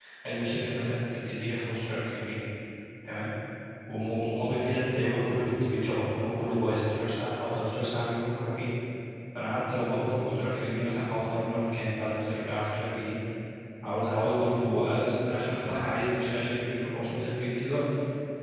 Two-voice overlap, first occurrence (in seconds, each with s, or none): none